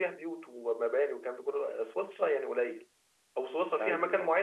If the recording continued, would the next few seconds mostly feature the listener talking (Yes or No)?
No